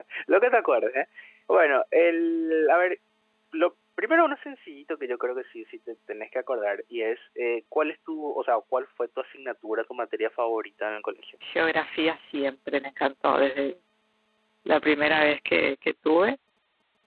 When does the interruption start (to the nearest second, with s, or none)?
none